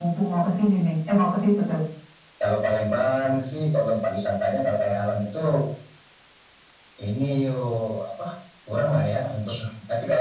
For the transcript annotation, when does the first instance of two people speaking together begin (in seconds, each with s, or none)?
none